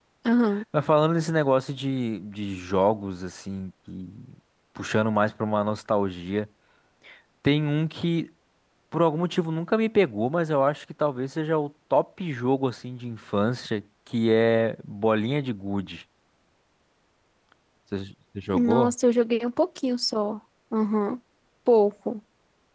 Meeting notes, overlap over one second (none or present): none